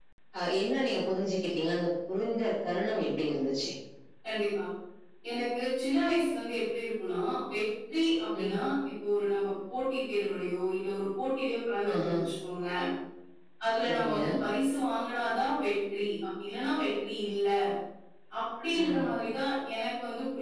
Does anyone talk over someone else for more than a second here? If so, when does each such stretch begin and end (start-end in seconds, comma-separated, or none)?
none